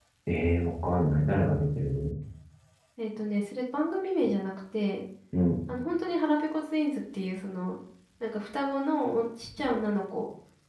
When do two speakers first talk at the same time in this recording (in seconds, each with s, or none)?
none